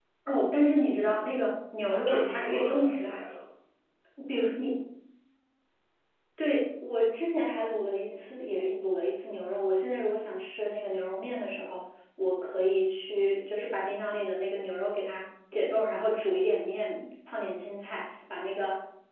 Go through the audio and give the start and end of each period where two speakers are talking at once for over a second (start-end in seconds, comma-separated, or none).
1.9-3.2